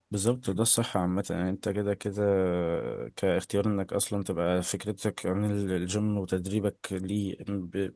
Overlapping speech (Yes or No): No